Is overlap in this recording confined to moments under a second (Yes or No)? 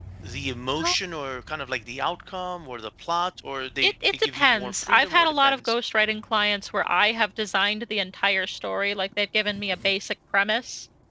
No